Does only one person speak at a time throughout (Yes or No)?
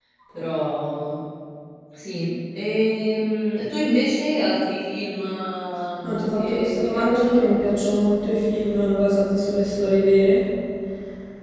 No